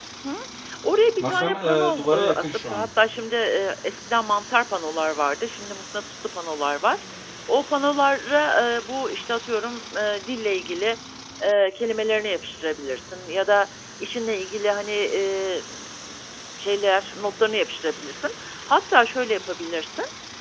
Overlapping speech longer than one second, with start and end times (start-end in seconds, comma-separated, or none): 1.2-2.9